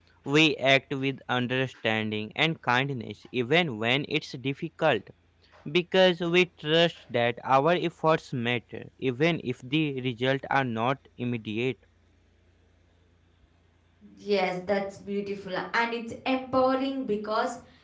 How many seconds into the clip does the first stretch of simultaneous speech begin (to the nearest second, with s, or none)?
none